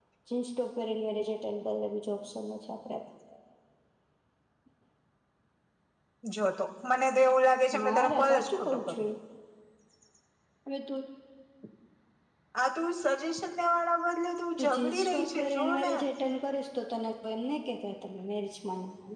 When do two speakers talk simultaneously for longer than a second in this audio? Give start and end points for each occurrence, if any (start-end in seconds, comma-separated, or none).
7.8-9.1, 14.6-15.9